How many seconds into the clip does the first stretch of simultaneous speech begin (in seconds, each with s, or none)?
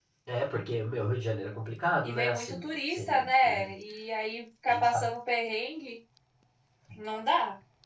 2.0 s